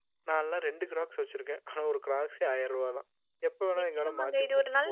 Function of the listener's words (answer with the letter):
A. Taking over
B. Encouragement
A